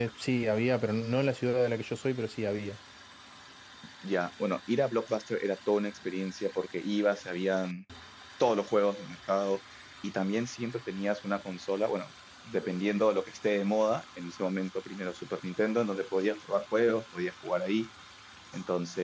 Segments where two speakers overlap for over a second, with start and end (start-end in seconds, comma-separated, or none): none